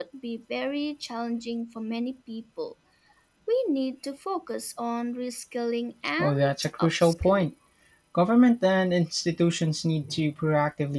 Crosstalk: present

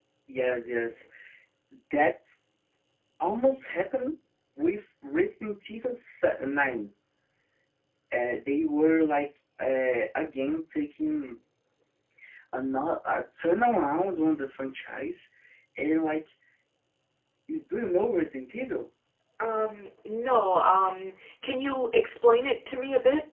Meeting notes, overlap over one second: none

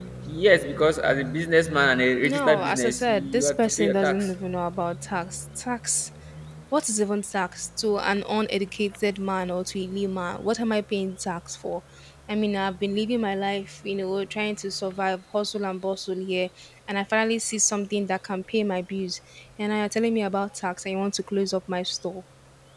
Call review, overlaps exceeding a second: present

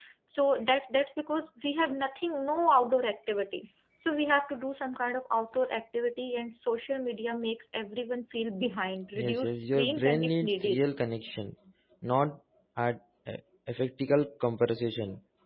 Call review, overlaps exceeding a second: present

